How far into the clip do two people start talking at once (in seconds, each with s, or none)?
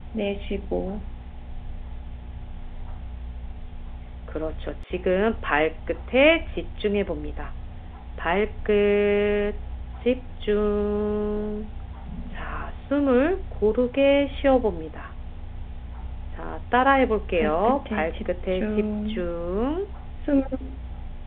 17.4 s